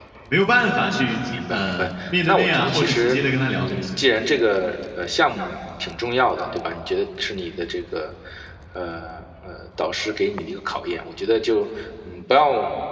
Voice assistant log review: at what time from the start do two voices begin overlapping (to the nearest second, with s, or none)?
2 s